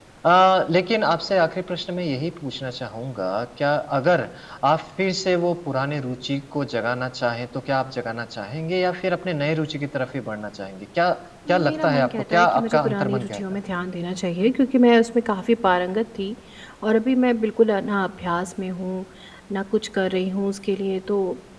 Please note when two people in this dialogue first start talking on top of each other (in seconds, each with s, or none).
11.5 s